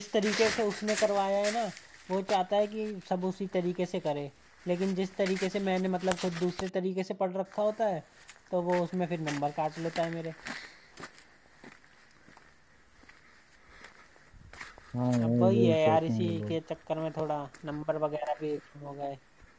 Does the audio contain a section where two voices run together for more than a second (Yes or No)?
Yes